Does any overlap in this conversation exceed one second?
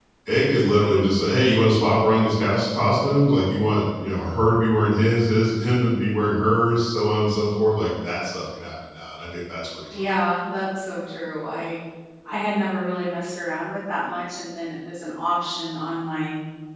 No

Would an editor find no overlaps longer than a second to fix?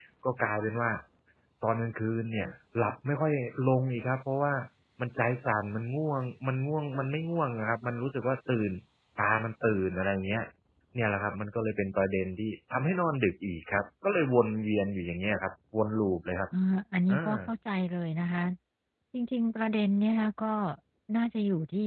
Yes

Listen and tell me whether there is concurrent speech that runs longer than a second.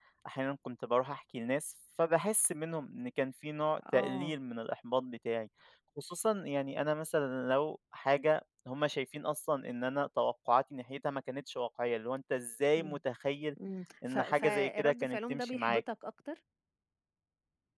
Yes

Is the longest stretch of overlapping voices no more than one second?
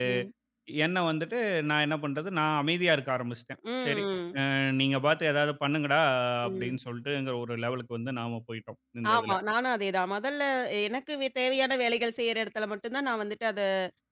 Yes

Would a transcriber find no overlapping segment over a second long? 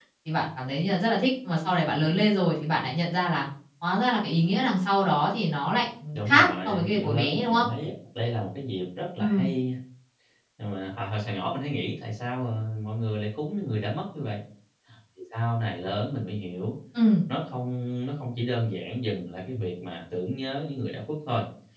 No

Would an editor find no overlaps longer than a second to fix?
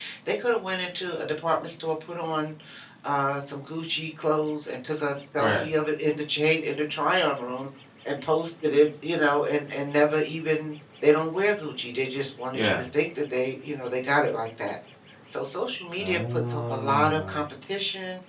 No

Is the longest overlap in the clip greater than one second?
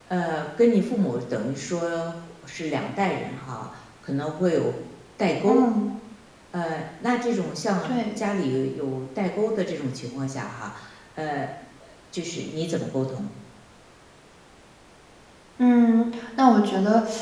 No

